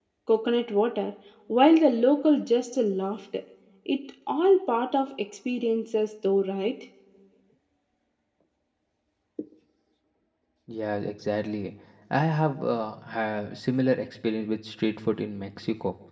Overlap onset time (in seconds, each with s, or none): none